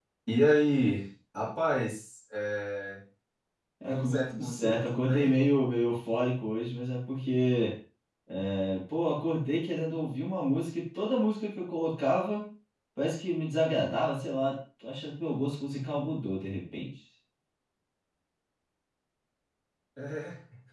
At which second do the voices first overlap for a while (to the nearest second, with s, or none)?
4 s